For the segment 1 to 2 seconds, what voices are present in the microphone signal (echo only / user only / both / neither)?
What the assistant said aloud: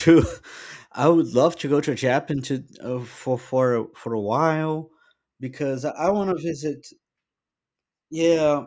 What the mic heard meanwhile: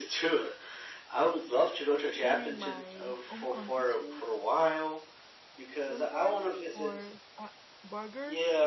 echo only